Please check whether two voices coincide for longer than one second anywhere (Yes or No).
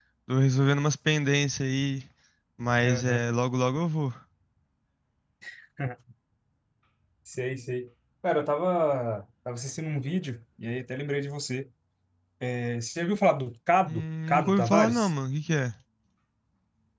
Yes